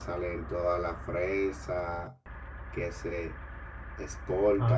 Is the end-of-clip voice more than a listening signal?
No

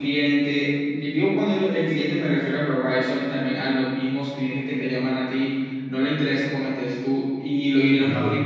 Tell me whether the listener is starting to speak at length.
No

